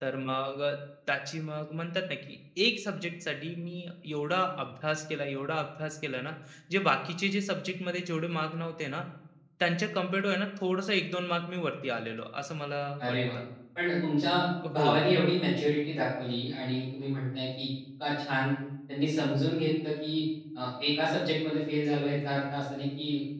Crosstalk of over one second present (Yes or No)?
No